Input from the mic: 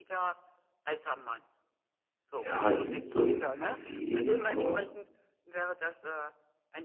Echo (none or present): present